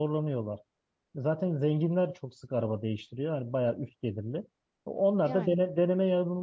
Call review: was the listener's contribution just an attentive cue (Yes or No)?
Yes